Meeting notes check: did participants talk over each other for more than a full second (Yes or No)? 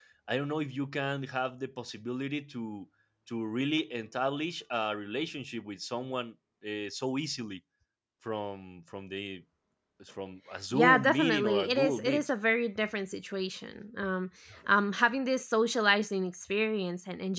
Yes